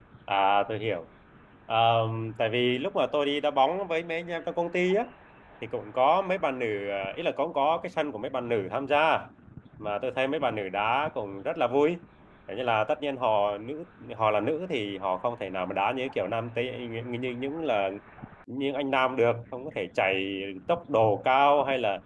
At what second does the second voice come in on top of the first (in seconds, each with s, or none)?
none